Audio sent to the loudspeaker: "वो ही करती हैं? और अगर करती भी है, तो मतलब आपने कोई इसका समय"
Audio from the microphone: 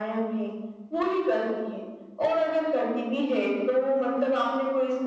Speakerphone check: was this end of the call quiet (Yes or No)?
Yes